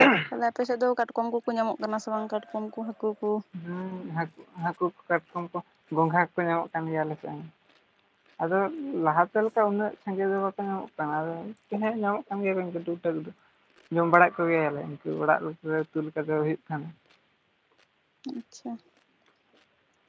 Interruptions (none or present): none